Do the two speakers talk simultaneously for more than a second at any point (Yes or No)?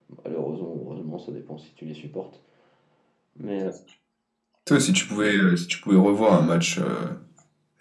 No